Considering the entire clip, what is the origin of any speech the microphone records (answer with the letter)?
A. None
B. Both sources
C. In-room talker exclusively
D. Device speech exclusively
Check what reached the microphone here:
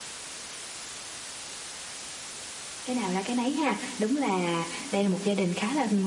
C